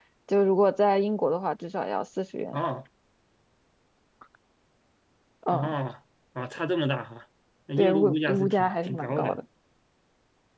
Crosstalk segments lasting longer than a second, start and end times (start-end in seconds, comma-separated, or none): 7.8-9.4